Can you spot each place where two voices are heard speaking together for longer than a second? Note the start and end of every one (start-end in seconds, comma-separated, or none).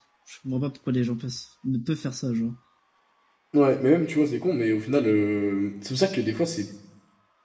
none